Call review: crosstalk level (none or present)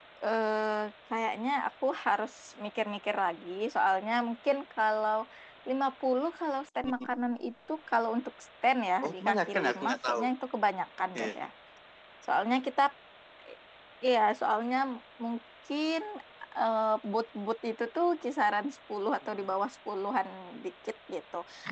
present